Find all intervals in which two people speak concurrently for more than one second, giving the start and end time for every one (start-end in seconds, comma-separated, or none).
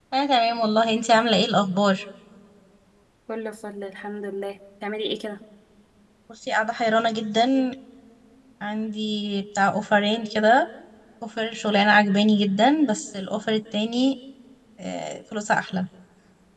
none